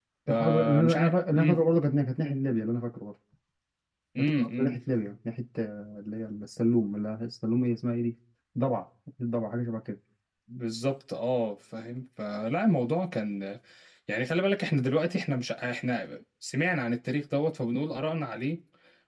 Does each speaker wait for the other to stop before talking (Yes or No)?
No